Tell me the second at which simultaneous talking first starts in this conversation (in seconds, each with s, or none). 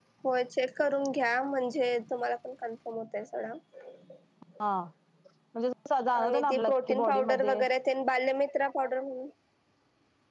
6.2 s